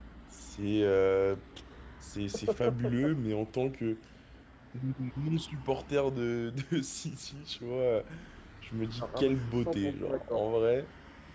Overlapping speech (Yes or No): Yes